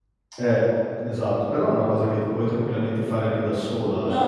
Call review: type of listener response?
taking over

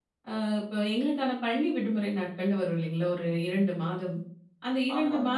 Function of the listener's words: listening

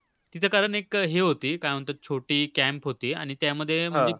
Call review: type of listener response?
listening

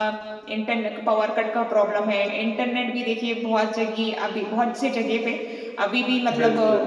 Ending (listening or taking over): listening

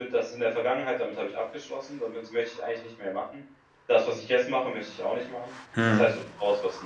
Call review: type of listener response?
listening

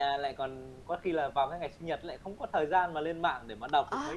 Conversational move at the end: taking over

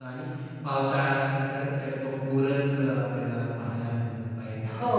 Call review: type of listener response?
taking over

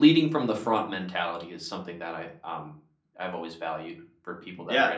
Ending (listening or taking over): taking over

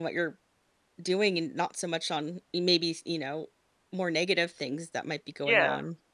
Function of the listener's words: taking over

